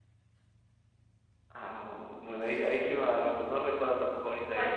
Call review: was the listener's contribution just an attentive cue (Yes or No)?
No